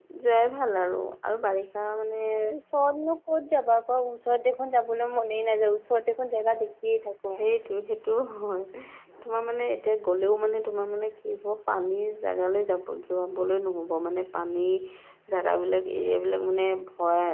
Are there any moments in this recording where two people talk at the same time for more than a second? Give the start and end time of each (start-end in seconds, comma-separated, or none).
none